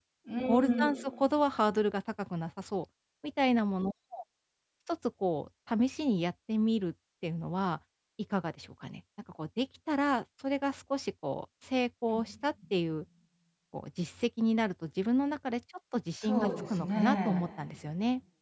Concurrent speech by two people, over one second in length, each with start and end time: 16.2-17.4

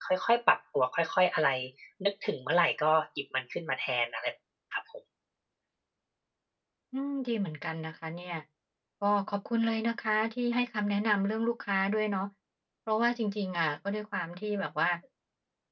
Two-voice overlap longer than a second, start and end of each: none

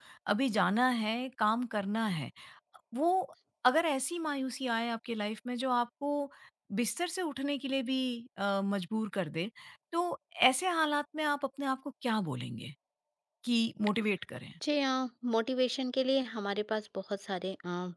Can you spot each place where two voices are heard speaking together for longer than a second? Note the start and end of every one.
none

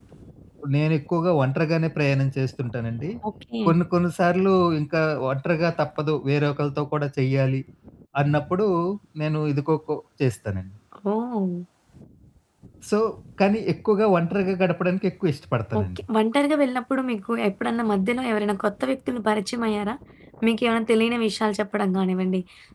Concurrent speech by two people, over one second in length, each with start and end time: none

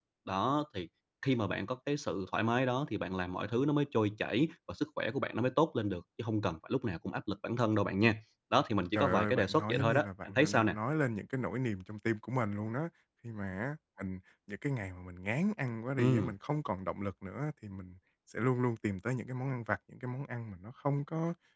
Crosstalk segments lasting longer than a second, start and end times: 8.9-10.8

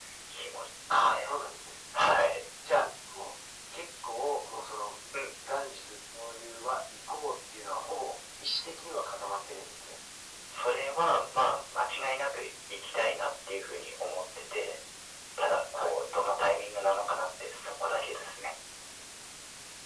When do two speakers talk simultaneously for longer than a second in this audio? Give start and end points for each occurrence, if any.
none

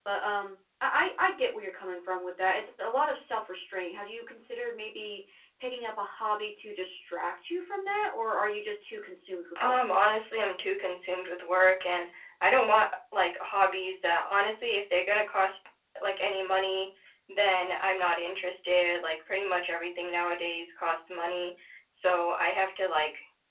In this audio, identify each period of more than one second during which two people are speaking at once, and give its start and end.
none

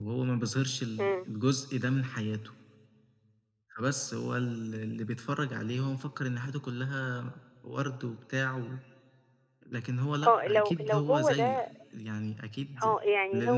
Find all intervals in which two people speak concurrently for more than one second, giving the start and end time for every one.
10.3-11.6

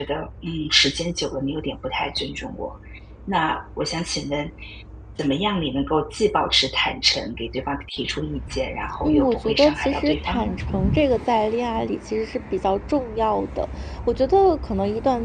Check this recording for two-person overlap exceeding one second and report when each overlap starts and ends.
9.0-10.4

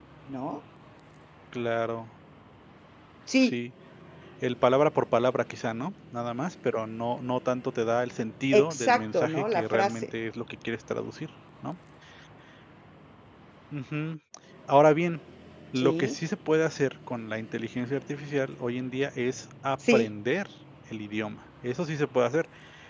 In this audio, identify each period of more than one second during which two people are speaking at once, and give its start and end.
8.5-10.1

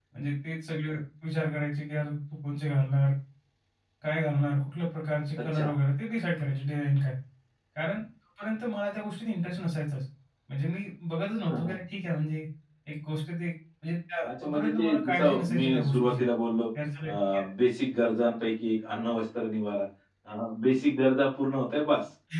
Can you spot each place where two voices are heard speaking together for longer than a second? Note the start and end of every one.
14.2-16.2

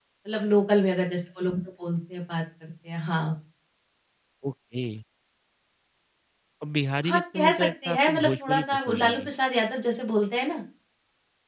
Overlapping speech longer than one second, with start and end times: 7.0-9.3

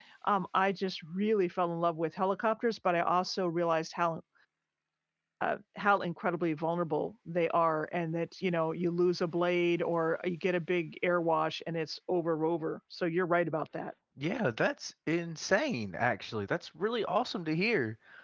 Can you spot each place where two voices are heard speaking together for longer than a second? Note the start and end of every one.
none

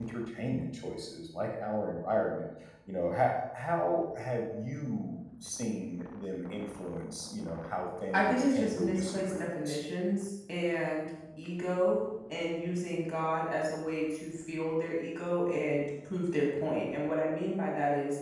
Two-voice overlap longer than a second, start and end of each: 8.1-9.8

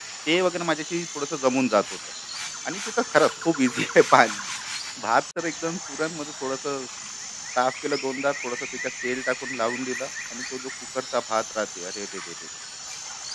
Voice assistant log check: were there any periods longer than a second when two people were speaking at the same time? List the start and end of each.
none

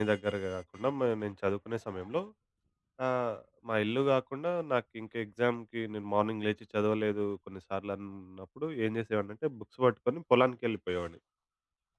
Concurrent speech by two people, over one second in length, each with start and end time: none

